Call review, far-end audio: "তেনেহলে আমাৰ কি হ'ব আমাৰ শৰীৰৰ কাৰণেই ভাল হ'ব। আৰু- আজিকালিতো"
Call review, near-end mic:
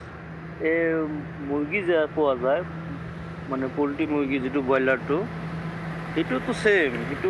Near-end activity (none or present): present